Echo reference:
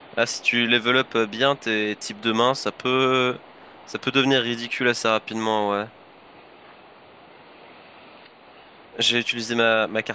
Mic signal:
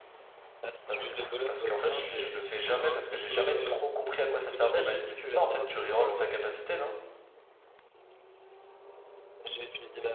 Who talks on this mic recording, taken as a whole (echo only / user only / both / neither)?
both